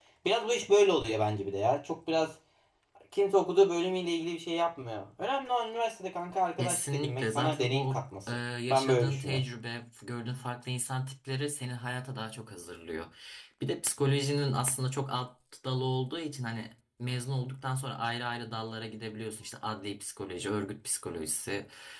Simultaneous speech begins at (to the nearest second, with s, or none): 7 s